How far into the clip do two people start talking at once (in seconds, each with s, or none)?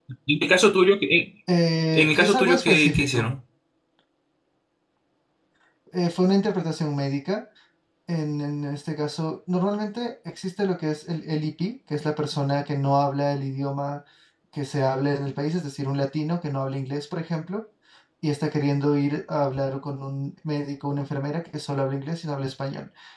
2.0 s